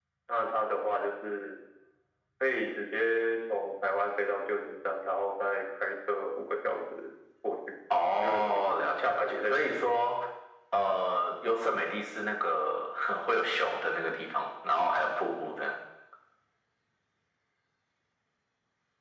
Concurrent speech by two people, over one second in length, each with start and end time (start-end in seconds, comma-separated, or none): 8.2-9.8